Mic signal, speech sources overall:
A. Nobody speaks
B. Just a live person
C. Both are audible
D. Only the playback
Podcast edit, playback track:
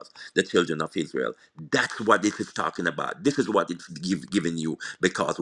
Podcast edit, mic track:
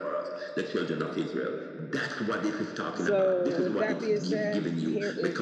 C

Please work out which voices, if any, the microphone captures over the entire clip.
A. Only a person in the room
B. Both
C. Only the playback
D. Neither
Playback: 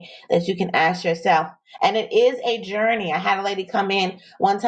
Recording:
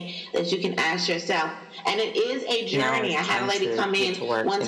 B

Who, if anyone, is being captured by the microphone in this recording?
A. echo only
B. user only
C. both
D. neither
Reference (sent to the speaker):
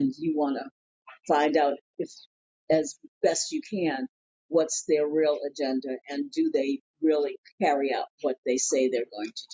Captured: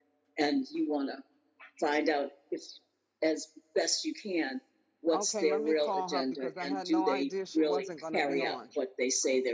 C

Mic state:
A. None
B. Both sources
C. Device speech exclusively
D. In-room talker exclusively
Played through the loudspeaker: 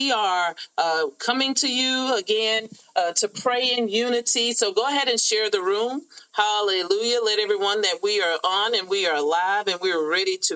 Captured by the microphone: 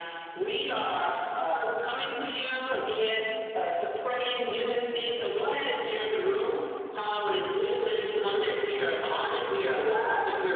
C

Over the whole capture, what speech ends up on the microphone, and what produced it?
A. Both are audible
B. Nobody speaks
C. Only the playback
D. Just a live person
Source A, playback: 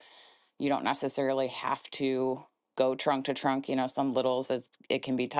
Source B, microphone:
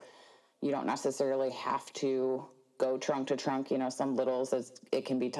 C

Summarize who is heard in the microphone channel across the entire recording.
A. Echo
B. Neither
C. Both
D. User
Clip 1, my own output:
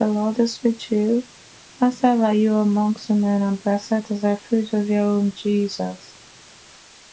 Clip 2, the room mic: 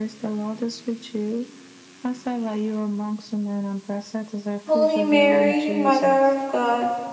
C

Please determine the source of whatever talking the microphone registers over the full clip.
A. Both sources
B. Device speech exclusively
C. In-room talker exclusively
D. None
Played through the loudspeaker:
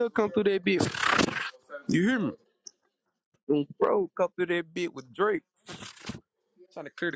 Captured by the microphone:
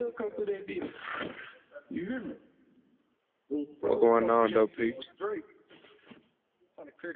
A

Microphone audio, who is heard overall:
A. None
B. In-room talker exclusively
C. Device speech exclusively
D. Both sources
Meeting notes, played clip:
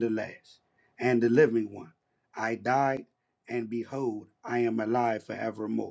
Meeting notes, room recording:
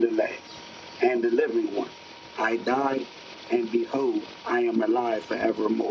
C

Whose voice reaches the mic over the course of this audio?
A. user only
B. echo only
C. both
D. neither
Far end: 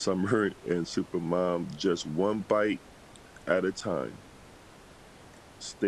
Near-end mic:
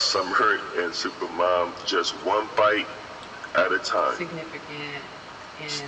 C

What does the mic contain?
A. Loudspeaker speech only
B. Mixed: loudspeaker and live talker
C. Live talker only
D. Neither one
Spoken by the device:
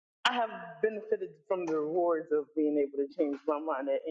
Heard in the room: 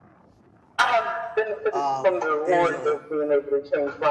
B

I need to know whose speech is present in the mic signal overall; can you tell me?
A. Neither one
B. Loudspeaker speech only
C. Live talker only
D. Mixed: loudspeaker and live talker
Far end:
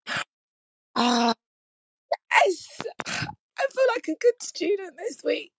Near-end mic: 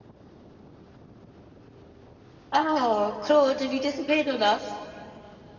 C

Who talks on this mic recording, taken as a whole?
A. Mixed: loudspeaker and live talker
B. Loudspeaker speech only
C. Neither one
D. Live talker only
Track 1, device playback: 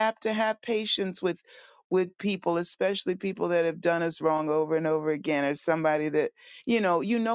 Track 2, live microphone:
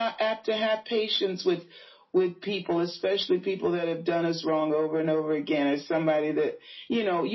B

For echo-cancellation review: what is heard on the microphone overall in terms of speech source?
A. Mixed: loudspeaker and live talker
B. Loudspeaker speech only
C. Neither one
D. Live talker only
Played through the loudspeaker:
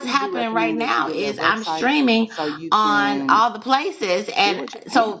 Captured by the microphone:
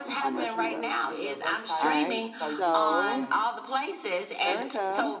A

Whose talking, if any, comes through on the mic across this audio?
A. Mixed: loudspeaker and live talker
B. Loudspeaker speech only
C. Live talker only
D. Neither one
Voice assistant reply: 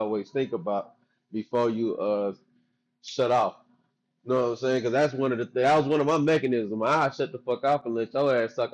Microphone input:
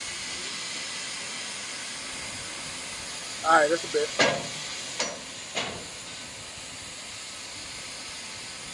C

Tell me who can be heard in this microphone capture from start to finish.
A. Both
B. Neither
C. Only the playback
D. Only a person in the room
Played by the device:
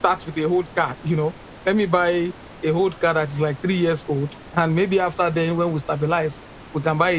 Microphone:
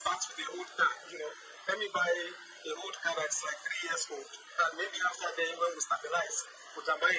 C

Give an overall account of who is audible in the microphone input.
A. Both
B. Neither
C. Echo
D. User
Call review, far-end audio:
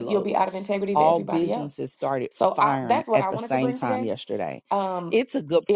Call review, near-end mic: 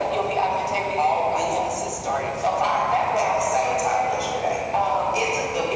C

